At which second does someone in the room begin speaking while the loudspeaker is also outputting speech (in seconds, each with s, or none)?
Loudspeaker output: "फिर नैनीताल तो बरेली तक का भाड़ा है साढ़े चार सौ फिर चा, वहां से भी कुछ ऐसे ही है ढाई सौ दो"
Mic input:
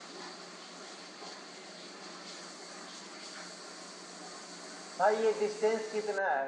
5.0 s